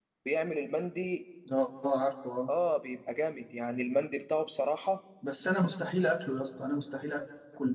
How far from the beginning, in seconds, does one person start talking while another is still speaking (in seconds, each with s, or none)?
none